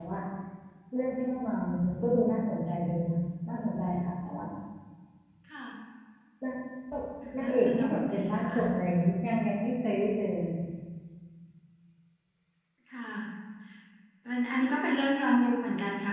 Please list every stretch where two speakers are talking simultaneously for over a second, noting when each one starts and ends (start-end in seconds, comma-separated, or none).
7.3-8.6